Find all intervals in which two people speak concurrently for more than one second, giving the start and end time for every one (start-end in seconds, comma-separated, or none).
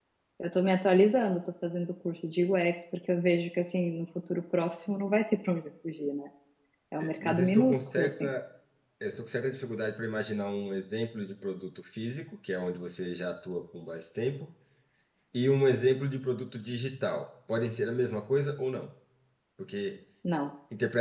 7.0-8.3